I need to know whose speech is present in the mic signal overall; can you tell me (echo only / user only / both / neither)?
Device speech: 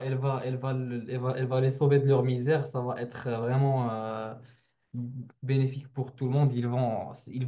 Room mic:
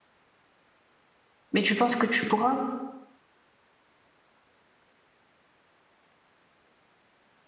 user only